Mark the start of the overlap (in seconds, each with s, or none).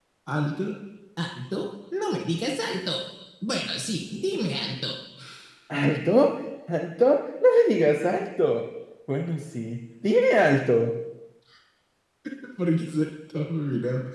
none